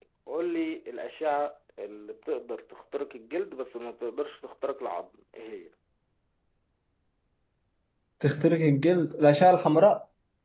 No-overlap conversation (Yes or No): Yes